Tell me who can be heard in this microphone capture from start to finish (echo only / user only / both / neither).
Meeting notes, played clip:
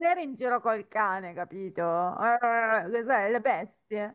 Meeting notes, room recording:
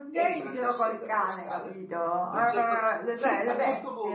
both